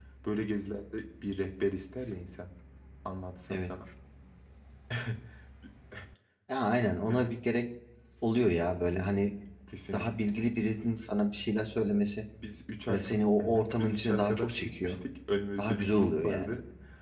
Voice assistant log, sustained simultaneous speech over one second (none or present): present